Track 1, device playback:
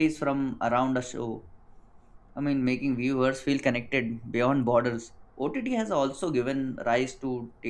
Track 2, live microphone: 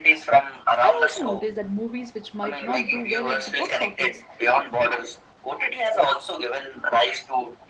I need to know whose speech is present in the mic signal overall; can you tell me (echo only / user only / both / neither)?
both